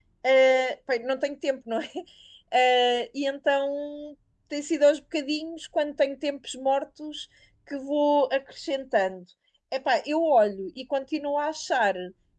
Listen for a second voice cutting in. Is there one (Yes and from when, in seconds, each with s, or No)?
No